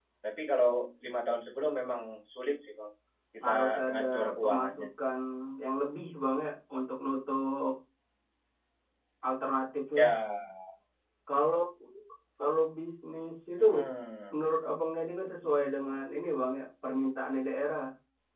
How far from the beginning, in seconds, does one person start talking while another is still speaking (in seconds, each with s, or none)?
3.4 s